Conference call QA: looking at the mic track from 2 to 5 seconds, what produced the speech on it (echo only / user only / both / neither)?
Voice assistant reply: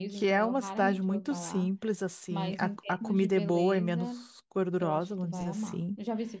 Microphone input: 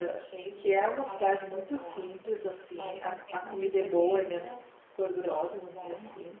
echo only